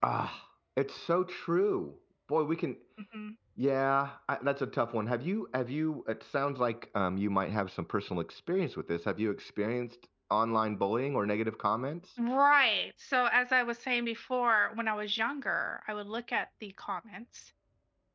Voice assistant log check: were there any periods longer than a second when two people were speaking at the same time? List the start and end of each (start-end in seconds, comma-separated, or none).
none